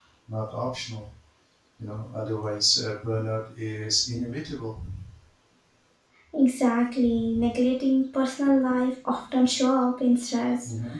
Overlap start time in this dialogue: none

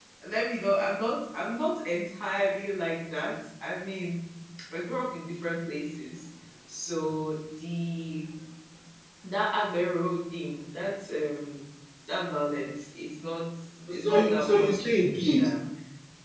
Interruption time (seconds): 14.0 s

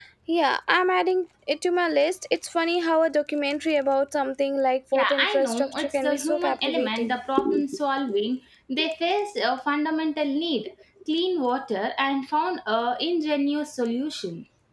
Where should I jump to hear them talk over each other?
4.9 s

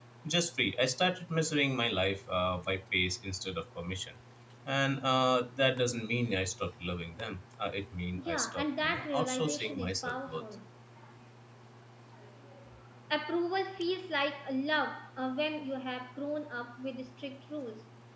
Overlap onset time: 8.2 s

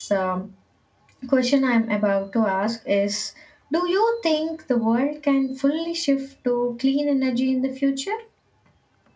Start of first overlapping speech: none

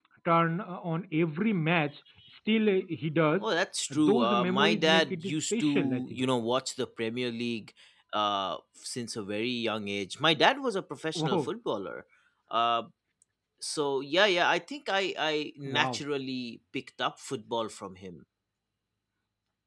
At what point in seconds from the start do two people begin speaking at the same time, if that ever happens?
3.9 s

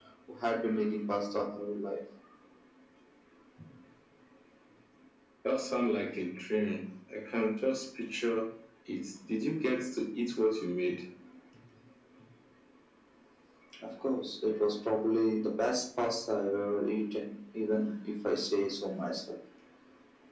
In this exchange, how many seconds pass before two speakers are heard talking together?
none

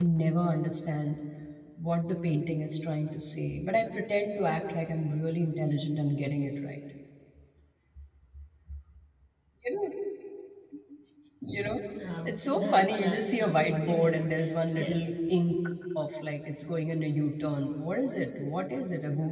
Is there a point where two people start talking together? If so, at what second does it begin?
12.2 s

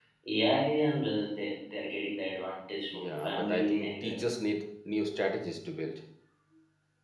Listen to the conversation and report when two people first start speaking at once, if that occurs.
2.9 s

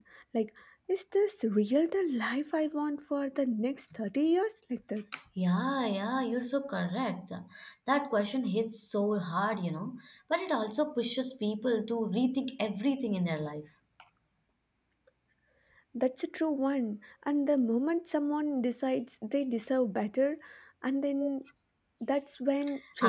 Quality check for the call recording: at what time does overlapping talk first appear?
none

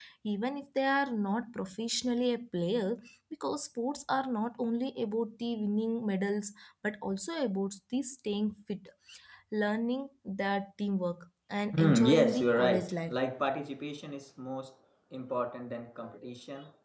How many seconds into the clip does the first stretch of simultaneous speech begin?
11.7 s

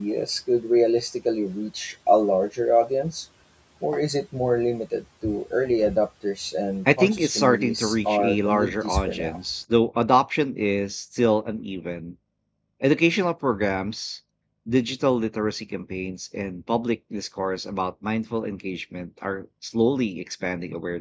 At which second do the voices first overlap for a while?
6.9 s

